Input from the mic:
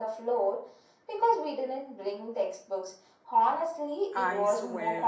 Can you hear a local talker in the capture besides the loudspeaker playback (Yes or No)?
Yes